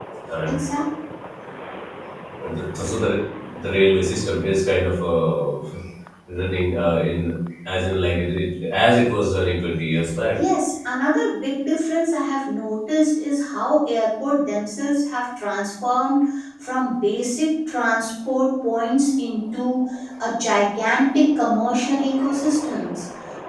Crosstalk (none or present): none